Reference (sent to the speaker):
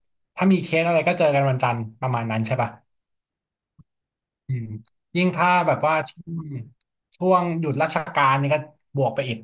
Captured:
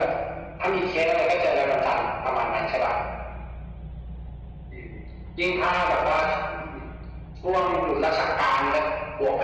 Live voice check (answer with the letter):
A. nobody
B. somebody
A